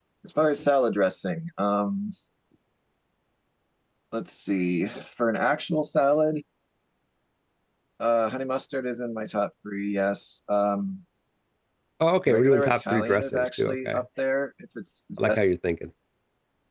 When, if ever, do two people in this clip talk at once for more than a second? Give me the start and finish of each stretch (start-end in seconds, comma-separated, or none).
12.3-14.0